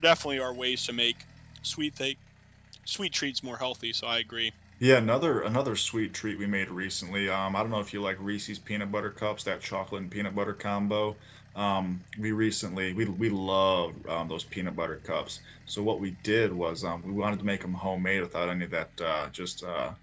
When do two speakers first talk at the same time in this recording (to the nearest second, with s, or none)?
none